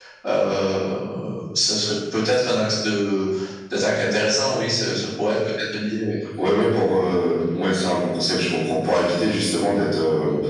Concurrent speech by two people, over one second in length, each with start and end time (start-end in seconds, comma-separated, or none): none